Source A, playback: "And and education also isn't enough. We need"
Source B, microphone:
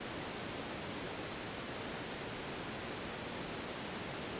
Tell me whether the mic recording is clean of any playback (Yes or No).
Yes